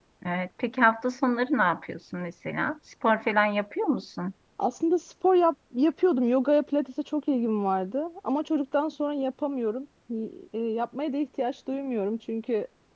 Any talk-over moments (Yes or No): No